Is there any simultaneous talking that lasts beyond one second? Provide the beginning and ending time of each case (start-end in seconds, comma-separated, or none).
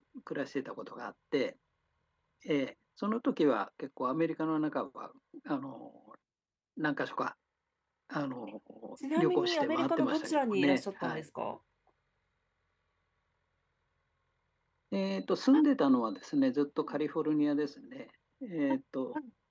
9.2-11.2